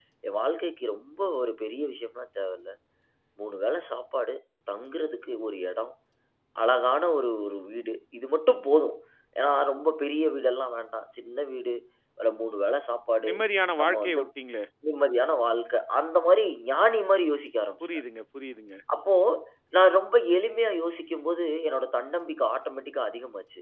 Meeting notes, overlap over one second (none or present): none